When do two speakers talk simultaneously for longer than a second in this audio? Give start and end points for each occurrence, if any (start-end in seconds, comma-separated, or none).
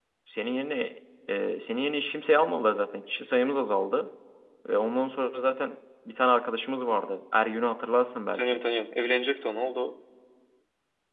none